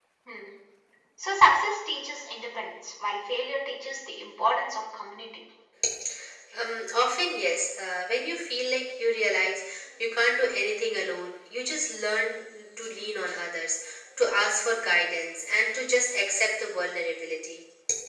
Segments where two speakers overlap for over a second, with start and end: none

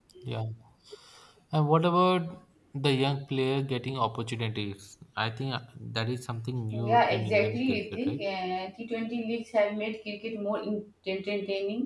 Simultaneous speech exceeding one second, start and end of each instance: 6.7-8.2

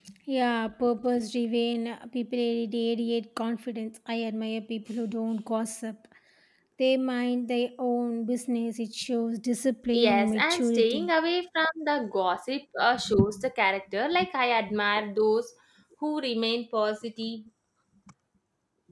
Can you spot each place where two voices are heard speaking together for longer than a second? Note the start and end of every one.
9.9-11.1

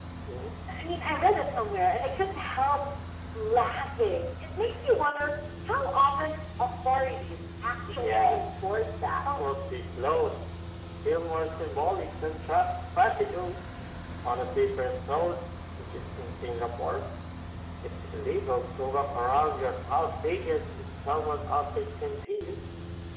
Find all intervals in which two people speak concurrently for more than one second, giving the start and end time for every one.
none

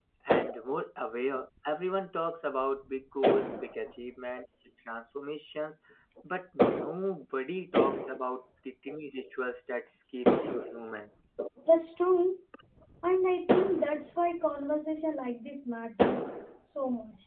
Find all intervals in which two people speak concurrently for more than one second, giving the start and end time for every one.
none

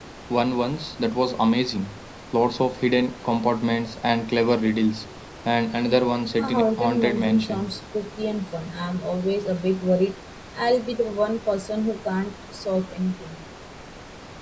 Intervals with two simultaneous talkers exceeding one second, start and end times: 6.4-7.6

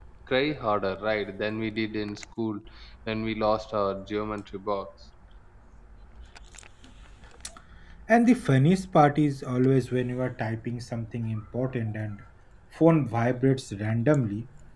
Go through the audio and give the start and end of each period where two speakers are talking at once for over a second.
none

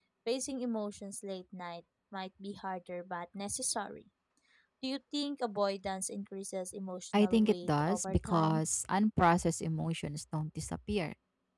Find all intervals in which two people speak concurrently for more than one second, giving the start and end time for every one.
7.1-8.6

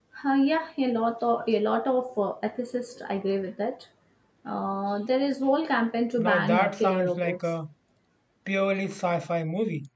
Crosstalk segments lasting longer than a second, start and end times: 6.2-7.4

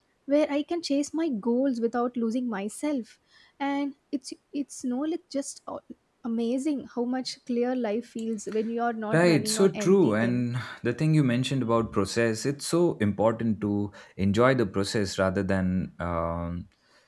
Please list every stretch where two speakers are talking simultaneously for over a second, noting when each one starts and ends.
9.1-10.4

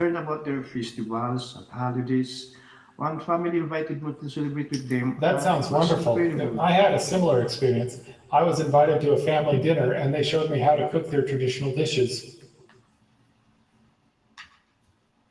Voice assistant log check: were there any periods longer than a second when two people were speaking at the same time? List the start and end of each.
5.2-6.6

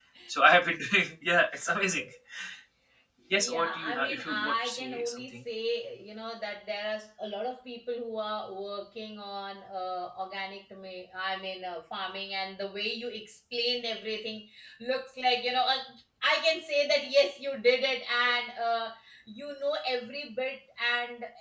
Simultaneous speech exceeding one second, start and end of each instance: 3.3-5.3

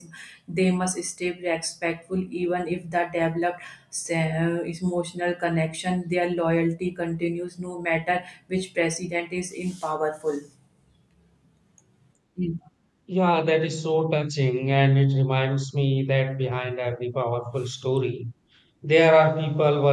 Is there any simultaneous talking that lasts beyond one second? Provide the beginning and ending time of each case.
none

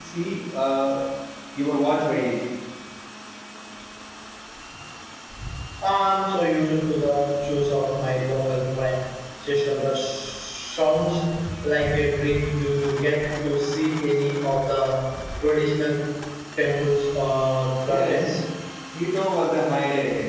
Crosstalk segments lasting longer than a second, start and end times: none

